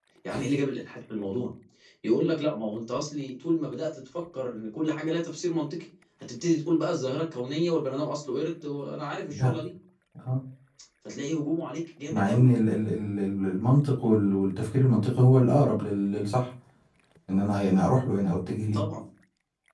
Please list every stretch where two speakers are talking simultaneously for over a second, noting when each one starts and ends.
none

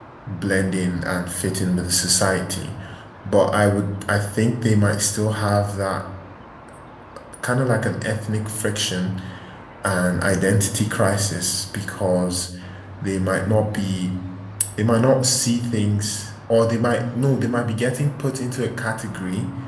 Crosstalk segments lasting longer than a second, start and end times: none

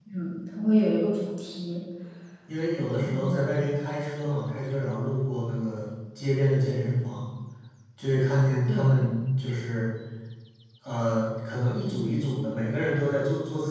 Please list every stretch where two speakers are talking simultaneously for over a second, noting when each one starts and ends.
none

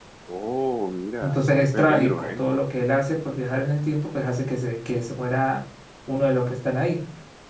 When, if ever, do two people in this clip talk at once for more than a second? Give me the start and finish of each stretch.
1.2-2.5

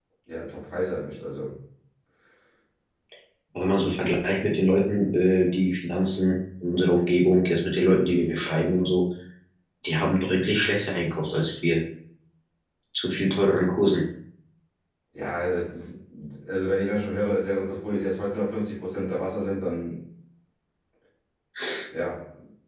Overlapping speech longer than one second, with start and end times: none

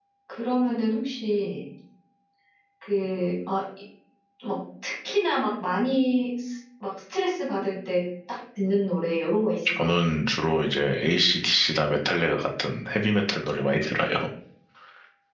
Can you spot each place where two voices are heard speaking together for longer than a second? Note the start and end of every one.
none

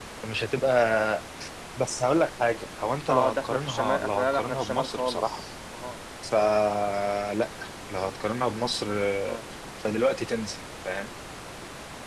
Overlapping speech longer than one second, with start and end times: 3.1-5.4

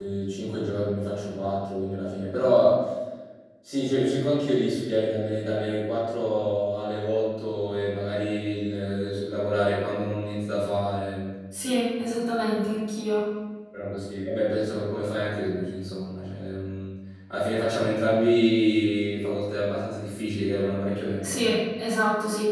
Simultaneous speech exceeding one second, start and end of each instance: none

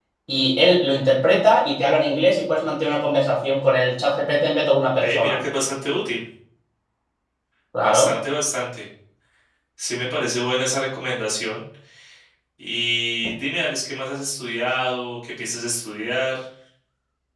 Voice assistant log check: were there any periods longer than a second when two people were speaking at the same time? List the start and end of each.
none

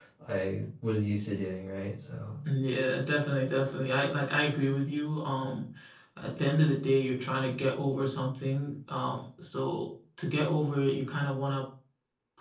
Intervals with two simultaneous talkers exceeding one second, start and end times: none

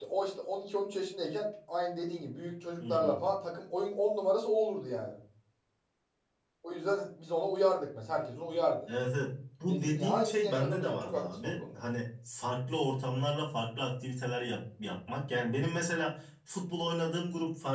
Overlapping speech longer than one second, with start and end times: 9.7-11.6

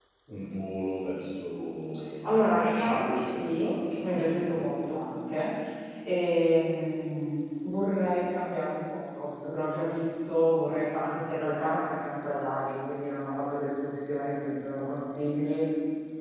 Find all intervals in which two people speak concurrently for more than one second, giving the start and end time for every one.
2.2-4.7

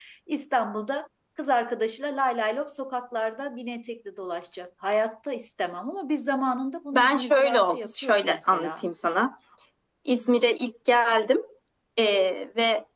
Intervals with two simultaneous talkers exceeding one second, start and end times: 6.9-8.8

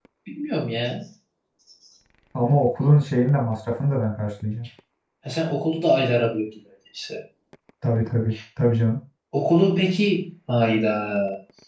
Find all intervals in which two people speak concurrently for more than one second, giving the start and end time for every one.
none

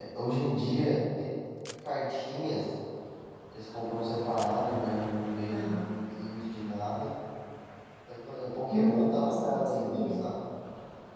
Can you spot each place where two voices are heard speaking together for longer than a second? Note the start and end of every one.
8.7-10.2

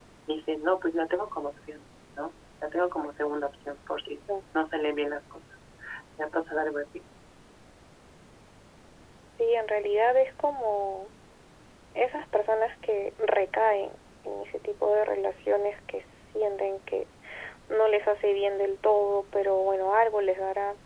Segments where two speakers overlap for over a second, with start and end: none

